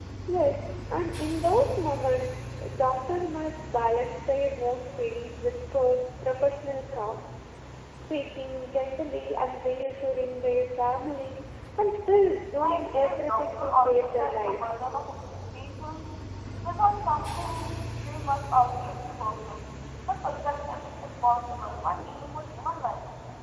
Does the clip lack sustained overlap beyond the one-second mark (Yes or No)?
No